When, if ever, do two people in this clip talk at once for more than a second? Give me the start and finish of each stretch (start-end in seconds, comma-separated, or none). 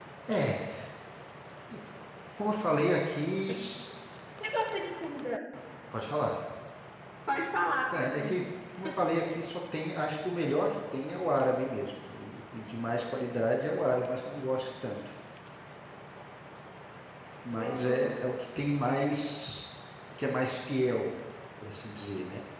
none